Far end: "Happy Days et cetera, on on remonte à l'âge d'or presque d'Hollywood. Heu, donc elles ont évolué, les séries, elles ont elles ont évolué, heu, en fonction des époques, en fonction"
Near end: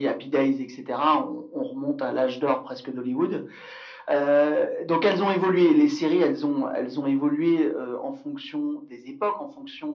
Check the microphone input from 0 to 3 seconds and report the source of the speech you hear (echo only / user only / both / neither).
echo only